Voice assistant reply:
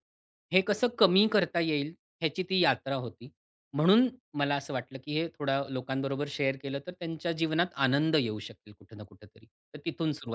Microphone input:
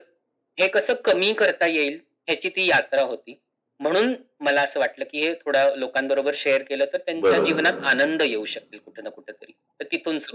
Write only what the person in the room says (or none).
बरोबर,